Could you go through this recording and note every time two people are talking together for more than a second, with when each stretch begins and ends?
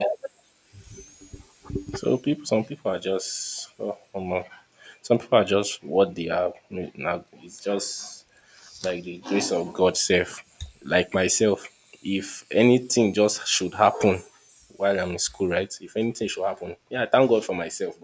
none

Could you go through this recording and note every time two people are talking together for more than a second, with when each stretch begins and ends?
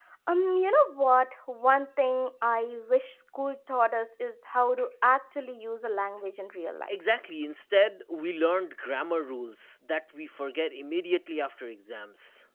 none

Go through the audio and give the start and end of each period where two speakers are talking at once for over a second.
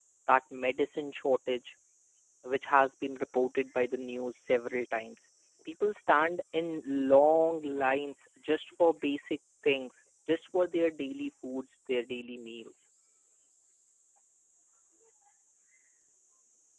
none

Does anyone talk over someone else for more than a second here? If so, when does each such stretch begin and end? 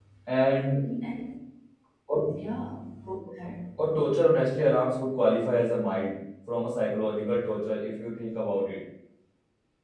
none

